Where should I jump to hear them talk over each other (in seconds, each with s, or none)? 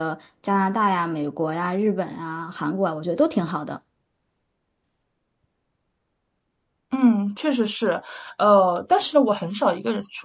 none